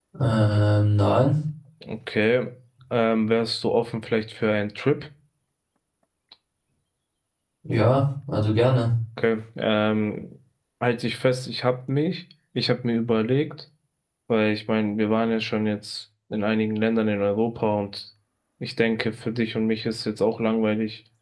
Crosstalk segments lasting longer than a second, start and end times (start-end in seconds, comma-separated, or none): none